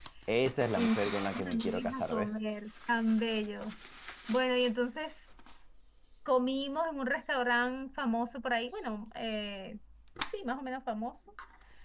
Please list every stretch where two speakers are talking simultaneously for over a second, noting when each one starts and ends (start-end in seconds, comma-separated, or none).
0.8-2.3